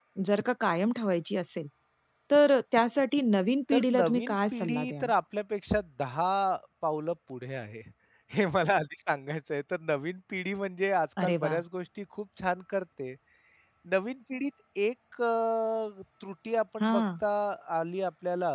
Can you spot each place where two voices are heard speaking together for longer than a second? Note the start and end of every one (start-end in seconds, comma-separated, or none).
3.7-5.1